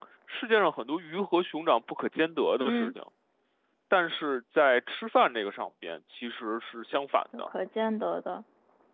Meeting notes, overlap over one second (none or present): none